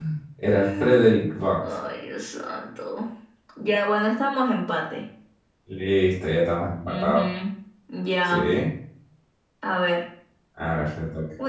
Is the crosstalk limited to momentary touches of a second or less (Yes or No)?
Yes